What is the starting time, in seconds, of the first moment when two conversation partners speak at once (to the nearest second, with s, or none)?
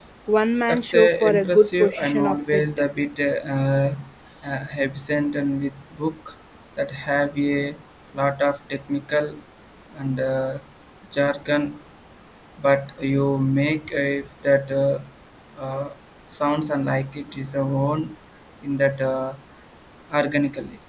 1 s